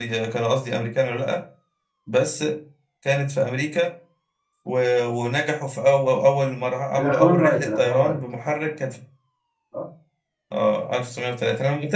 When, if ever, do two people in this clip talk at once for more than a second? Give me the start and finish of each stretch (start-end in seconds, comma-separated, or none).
7.0-8.2